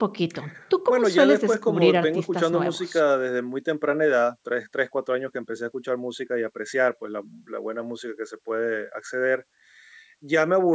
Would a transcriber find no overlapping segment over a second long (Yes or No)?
No